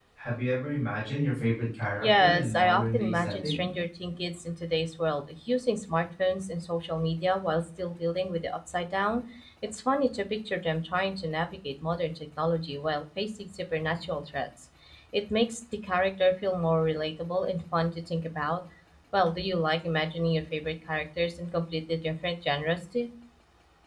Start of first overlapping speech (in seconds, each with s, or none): 2.0 s